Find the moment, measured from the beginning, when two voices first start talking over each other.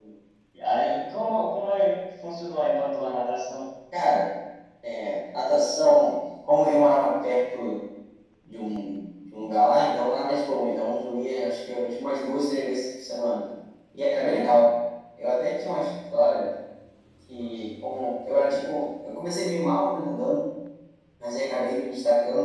none

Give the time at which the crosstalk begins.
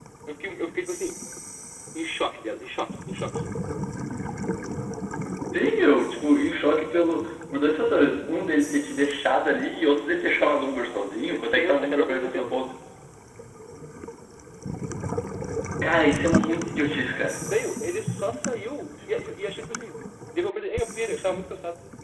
11 s

